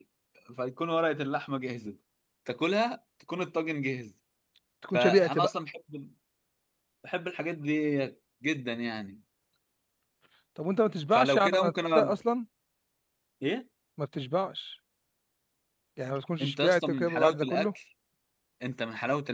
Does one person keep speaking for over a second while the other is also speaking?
Yes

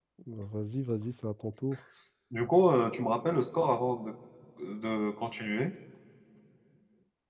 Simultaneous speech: No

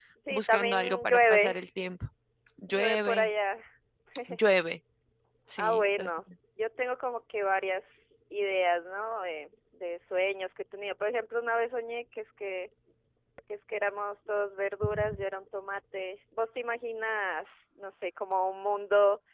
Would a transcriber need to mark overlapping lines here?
Yes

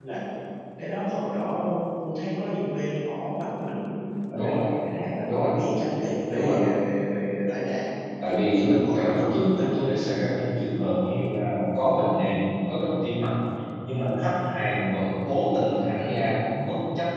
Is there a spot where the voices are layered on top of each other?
Yes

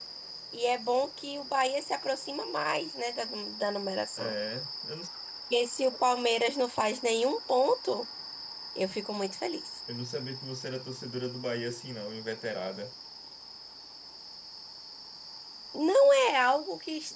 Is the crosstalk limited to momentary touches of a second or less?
Yes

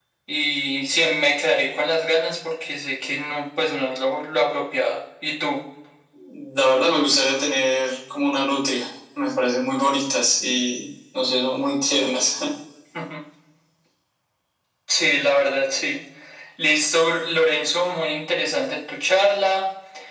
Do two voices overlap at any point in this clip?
No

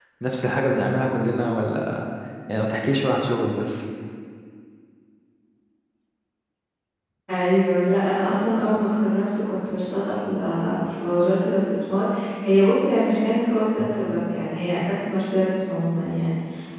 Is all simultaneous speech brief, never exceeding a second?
Yes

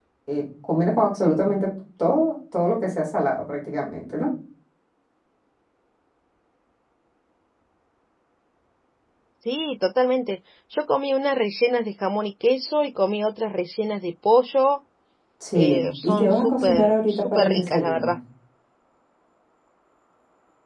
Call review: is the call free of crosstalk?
No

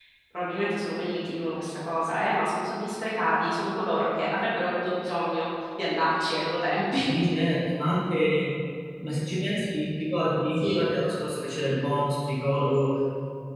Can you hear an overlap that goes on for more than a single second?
No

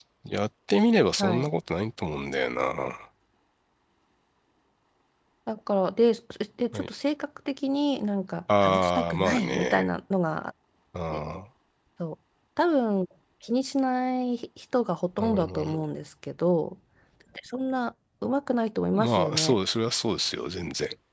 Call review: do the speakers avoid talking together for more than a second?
No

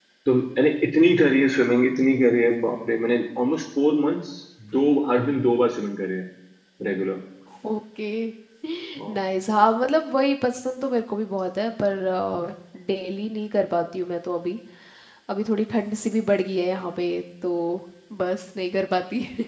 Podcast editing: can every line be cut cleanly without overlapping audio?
Yes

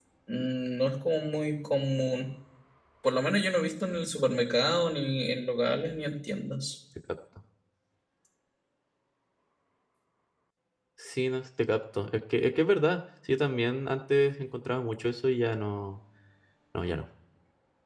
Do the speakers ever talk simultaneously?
No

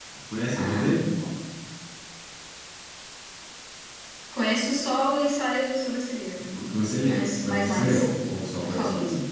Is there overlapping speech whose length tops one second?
Yes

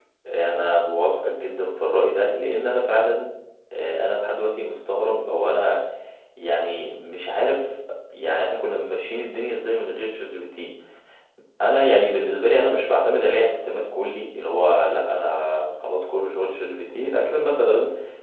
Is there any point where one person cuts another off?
No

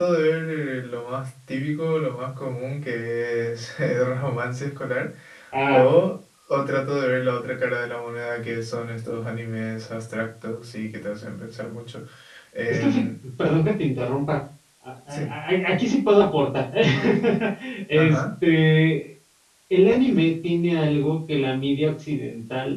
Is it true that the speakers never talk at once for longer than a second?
Yes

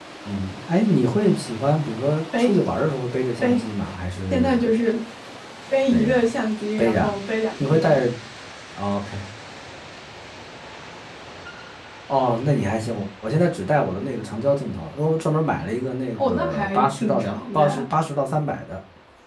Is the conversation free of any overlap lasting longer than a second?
No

